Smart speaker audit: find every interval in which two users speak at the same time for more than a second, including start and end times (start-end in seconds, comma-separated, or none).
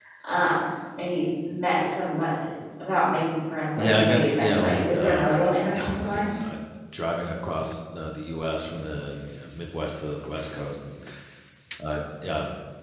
3.8-5.3